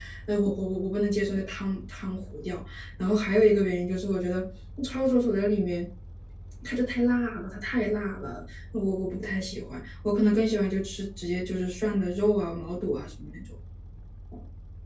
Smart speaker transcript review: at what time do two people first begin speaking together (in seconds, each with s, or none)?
none